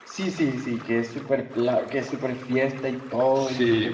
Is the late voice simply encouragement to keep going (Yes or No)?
No